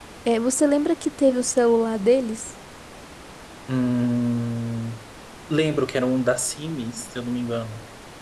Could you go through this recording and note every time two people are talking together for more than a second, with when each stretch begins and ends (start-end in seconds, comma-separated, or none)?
none